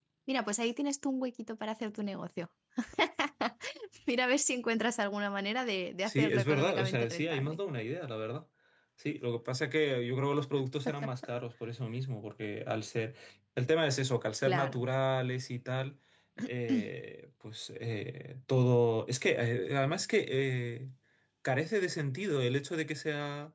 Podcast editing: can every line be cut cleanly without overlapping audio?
No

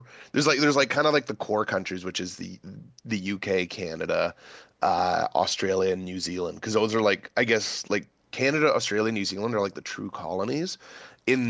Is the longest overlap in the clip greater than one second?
No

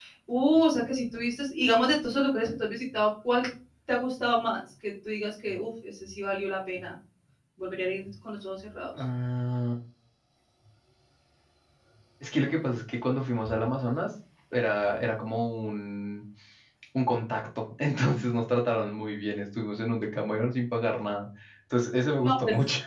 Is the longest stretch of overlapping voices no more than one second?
Yes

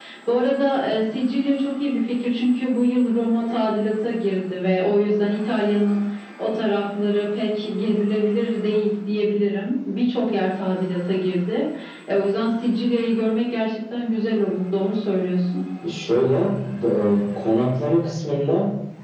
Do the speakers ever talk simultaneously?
No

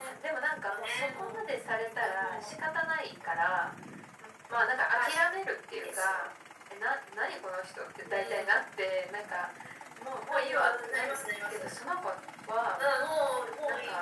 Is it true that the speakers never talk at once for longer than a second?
No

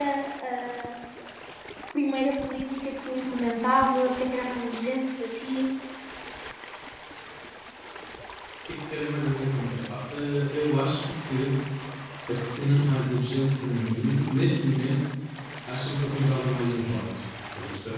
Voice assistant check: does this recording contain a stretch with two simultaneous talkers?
No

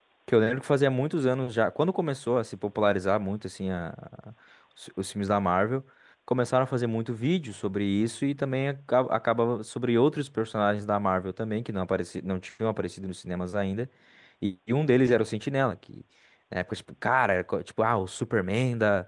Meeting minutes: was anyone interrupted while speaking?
No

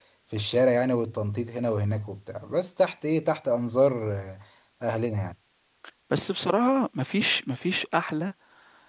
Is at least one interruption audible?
No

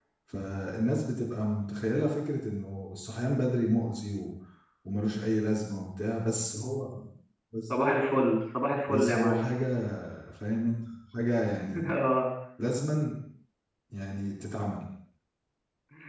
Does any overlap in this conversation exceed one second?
No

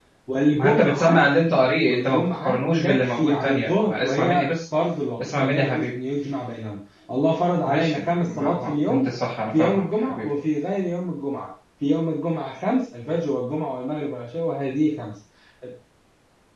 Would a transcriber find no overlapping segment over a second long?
No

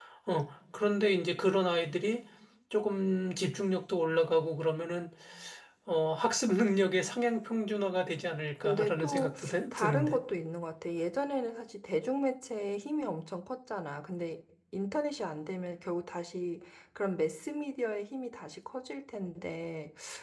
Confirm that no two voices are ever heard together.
No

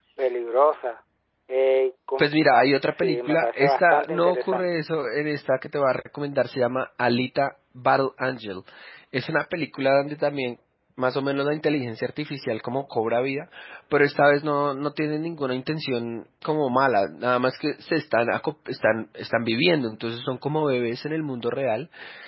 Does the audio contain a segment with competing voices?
Yes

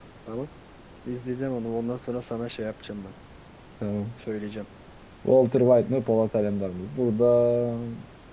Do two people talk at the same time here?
No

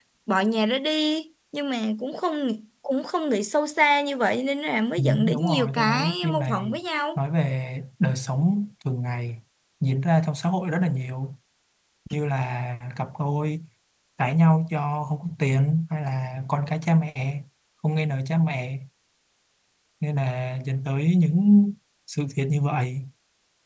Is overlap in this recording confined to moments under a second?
No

